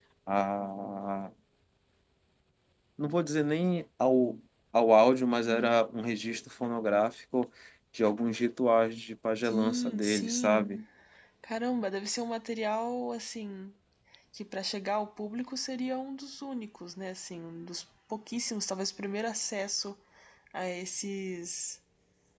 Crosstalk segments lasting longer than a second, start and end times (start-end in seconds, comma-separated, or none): 9.4-10.7